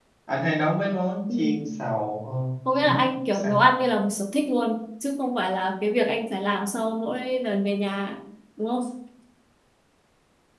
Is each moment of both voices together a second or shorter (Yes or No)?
Yes